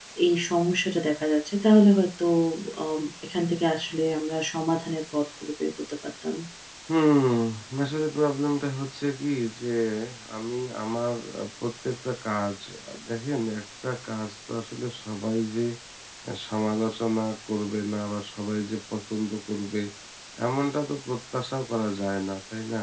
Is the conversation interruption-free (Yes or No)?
Yes